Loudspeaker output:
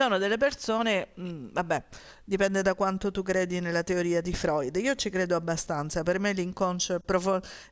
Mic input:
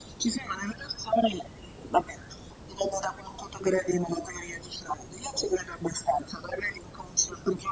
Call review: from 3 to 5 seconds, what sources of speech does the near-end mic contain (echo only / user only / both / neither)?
echo only